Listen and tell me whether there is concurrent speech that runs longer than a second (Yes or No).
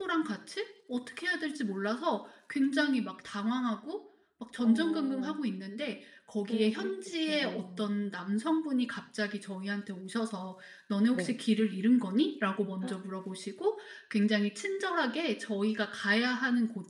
Yes